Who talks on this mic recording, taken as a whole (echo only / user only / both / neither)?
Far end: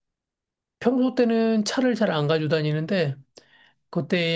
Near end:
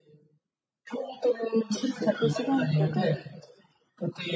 both